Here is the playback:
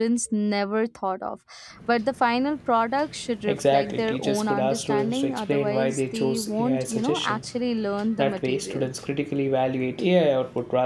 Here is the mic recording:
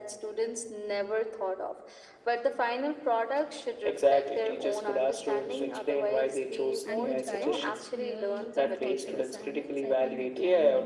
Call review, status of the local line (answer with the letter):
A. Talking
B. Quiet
A